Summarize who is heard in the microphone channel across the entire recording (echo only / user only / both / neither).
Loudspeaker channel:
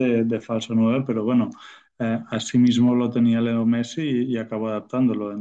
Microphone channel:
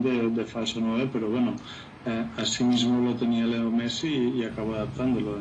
echo only